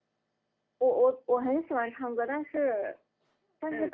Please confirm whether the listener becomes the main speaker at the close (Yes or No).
No